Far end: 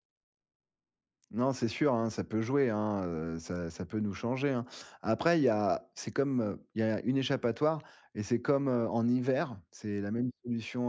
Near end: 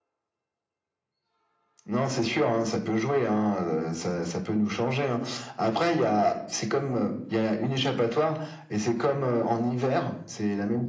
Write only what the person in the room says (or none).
none